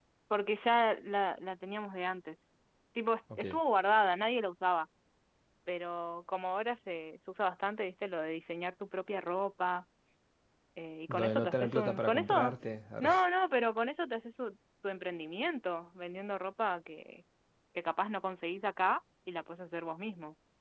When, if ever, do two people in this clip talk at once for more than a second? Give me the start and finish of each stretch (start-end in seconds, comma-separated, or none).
11.1-12.6